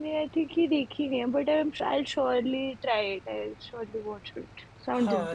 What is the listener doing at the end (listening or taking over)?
taking over